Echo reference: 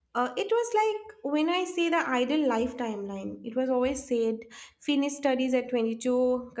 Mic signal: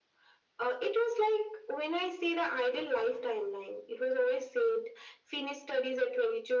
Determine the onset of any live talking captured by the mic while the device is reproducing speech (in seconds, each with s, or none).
none